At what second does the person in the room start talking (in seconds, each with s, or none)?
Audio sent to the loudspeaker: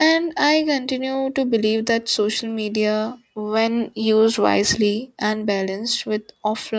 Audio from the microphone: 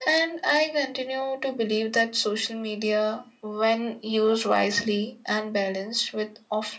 none